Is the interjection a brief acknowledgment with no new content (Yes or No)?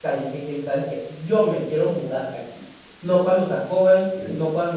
Yes